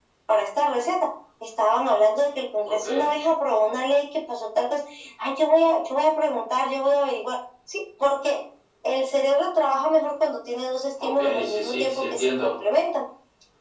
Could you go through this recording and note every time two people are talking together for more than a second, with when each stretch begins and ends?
11.0-12.6

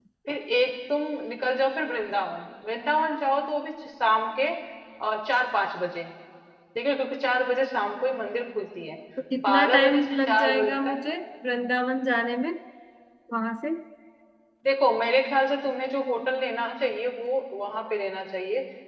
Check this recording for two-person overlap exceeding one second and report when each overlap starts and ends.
9.5-10.9

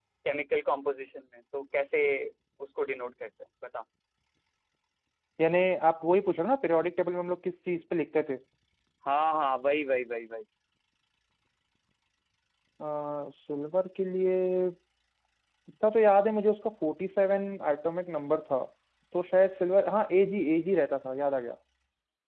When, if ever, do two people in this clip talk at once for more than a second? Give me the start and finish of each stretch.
none

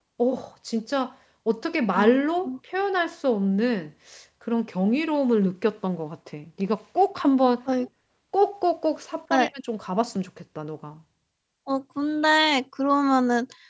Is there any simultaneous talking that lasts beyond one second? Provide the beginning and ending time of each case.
none

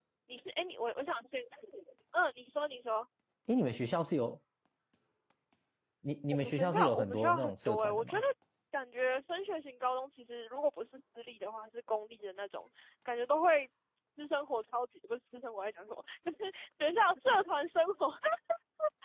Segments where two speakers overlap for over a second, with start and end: 6.3-8.2

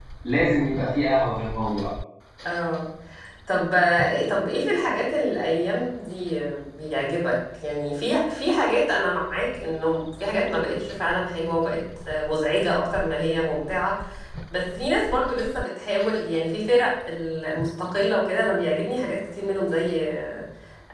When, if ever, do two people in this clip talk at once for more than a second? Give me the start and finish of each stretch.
none

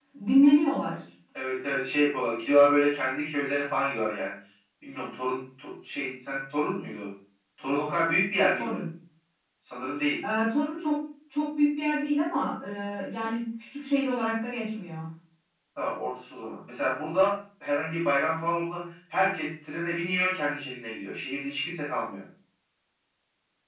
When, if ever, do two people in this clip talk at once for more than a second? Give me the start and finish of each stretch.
none

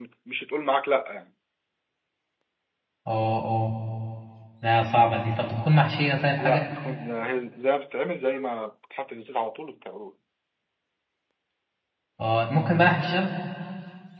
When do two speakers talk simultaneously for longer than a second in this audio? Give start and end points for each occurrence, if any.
none

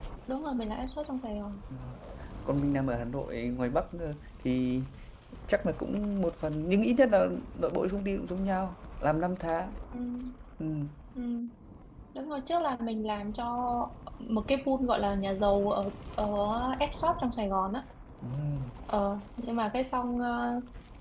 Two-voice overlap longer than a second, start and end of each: none

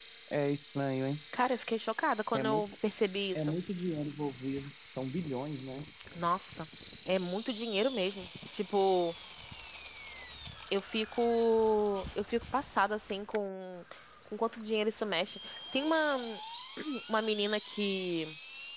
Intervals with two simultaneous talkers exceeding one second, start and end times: none

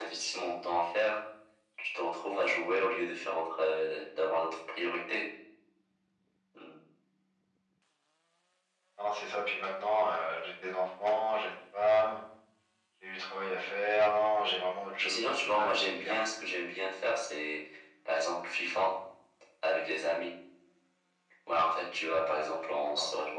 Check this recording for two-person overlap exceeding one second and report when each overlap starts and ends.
15.0-16.2

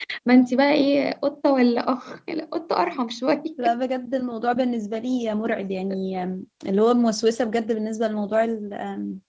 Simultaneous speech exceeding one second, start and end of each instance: none

